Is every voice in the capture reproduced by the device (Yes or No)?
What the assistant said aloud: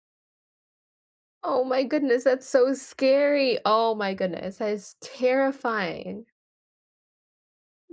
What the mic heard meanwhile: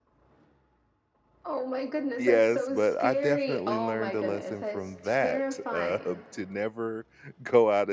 No